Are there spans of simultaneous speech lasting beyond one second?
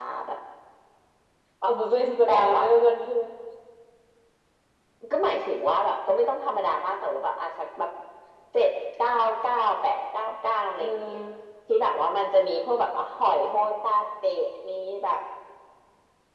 No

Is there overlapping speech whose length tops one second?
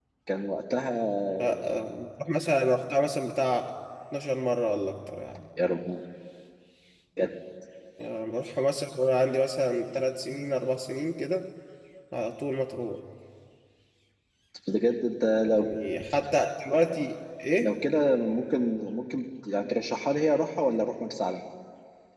No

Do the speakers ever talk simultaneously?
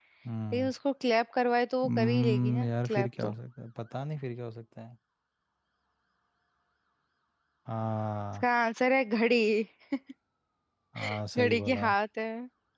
Yes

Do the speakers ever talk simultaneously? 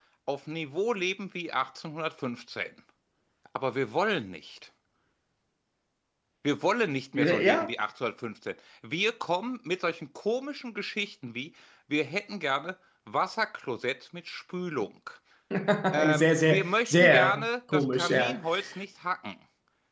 Yes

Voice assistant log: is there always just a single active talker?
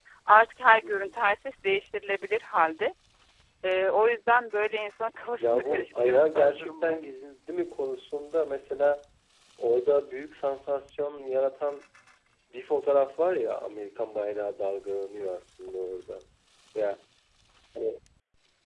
No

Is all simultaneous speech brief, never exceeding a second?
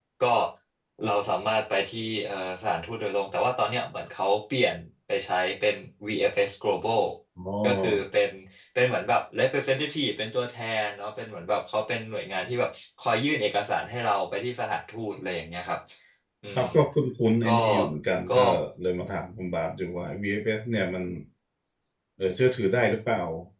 Yes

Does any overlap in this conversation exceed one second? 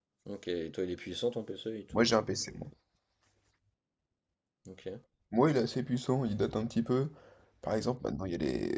No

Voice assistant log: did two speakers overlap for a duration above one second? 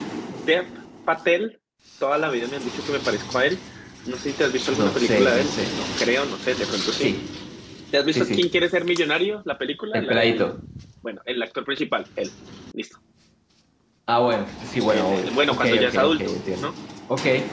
Yes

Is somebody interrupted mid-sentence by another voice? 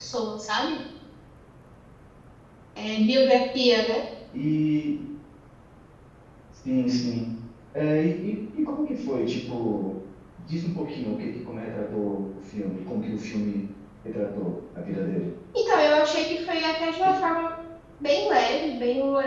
No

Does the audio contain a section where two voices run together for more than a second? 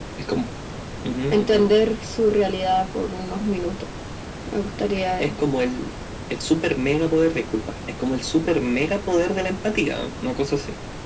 No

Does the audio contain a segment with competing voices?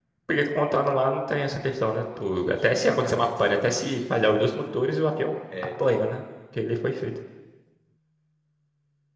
Yes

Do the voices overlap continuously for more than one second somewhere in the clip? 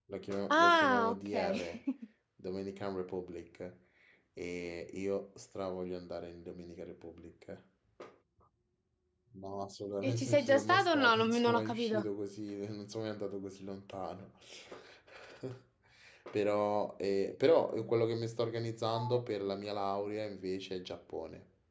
Yes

